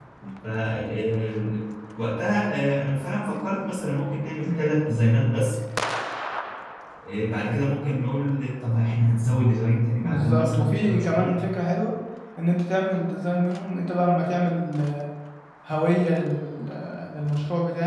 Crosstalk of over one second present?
Yes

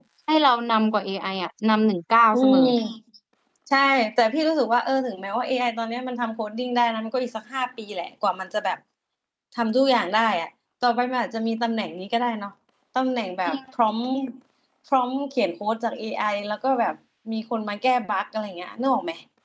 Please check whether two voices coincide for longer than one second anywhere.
No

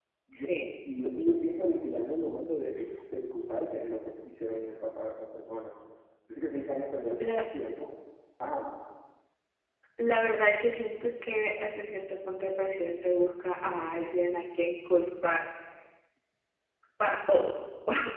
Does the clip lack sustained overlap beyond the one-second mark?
Yes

